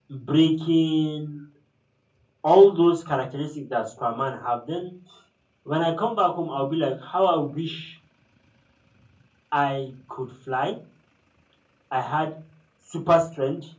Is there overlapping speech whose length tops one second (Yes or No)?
No